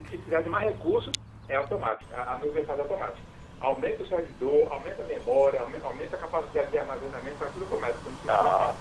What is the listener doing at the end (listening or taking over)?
taking over